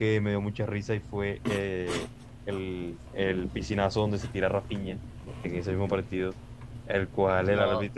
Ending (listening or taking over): listening